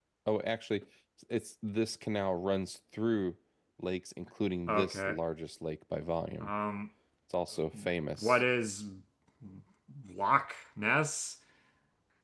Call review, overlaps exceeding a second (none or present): none